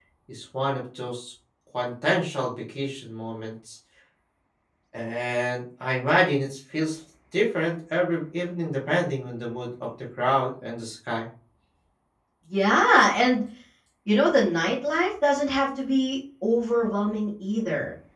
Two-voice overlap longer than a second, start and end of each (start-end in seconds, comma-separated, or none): none